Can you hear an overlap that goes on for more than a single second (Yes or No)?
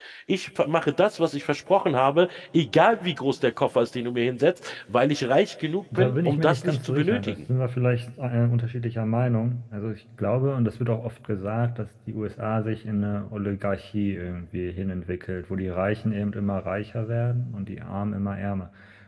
Yes